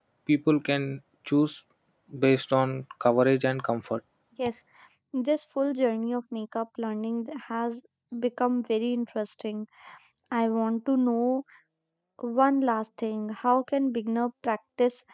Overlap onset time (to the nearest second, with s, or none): none